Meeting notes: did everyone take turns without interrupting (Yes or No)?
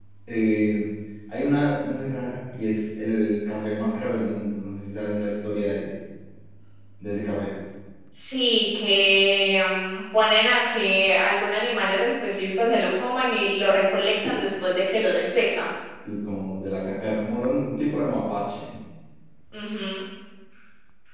Yes